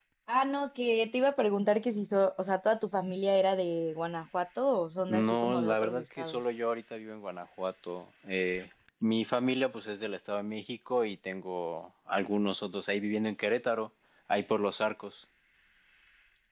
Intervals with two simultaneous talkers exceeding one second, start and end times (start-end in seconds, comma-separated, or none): 5.1-6.4